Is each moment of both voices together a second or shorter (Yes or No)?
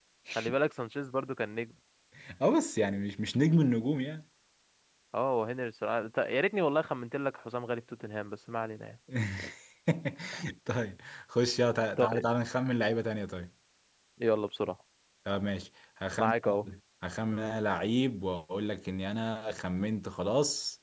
Yes